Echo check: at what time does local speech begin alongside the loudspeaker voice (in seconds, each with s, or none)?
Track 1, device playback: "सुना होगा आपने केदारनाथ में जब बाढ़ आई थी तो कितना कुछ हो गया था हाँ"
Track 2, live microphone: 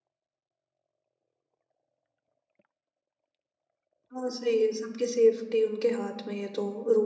4.1 s